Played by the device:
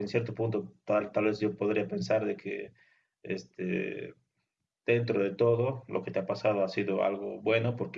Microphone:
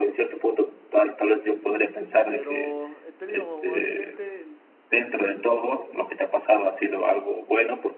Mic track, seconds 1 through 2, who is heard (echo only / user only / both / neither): echo only